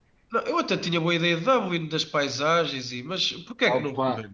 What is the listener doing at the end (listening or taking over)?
taking over